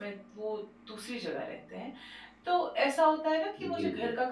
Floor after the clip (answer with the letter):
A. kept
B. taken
A